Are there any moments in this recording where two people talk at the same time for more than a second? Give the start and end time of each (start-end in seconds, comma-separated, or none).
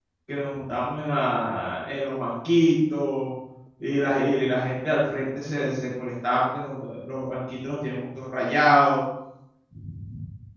none